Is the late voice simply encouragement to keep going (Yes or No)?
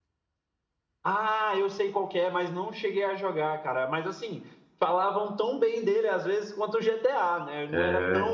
Yes